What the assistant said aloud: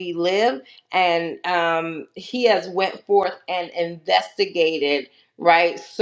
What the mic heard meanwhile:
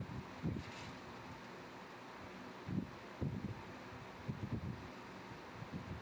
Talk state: neither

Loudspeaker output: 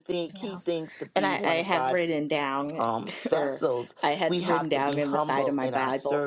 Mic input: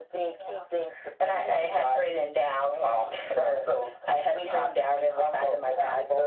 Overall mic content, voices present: echo only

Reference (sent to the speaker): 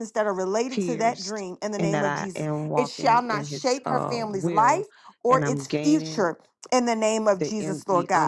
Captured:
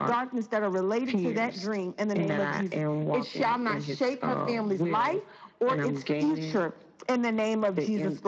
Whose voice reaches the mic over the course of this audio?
echo only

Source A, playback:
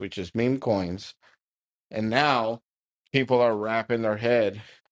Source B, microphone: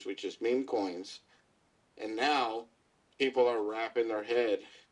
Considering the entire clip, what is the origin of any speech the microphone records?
echo only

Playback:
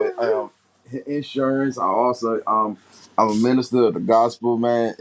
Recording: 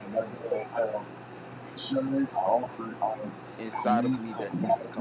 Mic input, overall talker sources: both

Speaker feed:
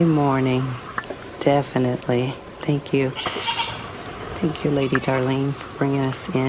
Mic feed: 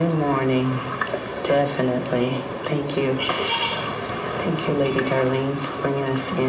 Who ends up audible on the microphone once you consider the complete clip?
echo only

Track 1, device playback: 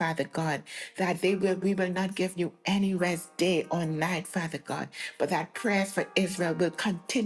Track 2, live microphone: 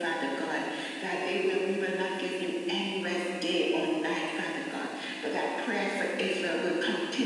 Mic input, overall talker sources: echo only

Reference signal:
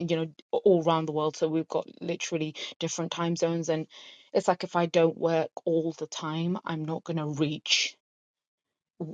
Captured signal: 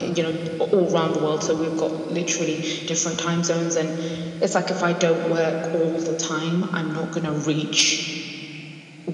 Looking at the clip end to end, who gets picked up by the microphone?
echo only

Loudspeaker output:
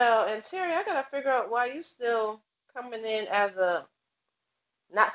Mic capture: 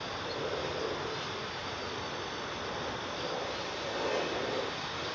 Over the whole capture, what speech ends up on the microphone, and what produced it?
neither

